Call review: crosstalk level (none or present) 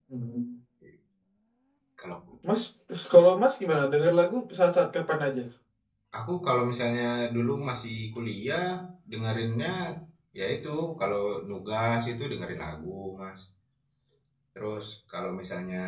none